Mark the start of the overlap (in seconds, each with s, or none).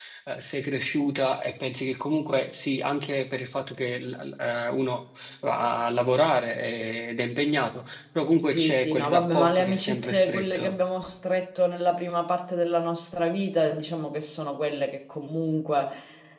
8.4 s